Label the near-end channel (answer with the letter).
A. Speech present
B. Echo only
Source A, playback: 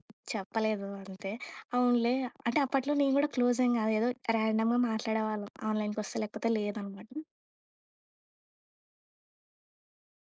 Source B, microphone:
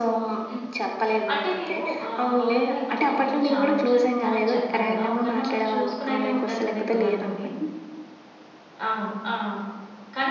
A